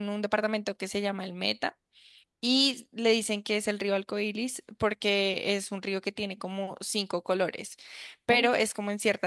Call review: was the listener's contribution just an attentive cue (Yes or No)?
Yes